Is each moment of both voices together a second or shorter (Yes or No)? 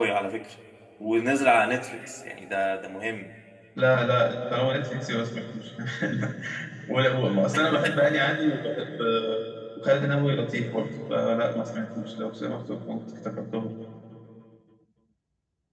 Yes